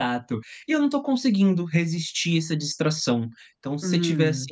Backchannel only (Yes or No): Yes